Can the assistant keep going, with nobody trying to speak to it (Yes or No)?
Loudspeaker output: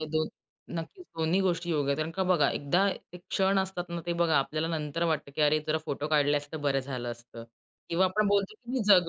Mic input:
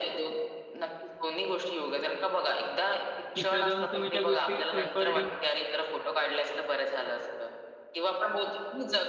No